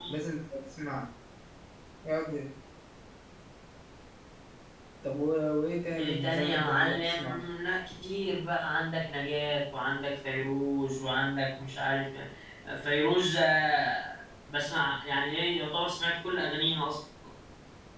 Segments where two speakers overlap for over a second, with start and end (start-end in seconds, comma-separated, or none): 6.0-7.4